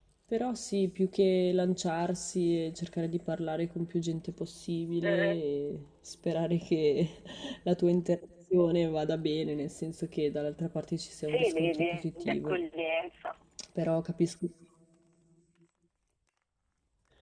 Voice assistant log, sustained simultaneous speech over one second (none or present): present